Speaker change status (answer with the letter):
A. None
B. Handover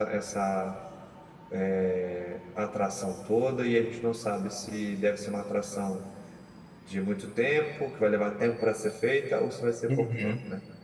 B